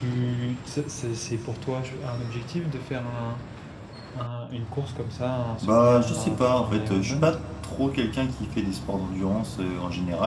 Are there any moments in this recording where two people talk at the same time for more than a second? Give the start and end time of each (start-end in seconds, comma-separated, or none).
5.6-7.3